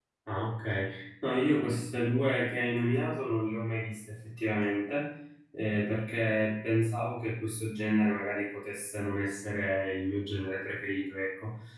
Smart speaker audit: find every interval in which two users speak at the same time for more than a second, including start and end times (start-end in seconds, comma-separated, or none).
none